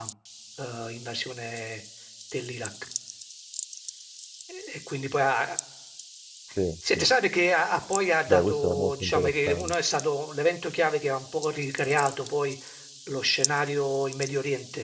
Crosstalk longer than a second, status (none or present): present